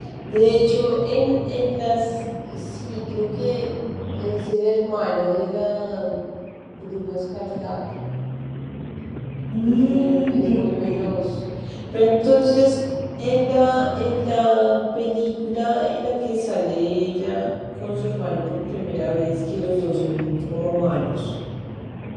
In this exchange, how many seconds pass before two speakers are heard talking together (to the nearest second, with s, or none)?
10 s